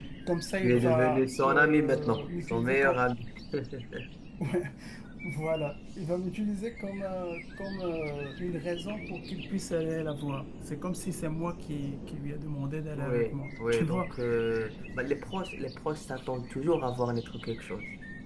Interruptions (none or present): present